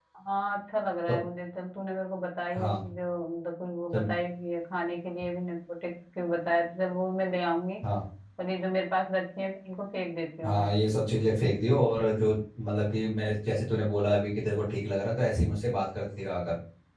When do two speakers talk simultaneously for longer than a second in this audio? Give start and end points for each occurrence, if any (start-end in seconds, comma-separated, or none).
none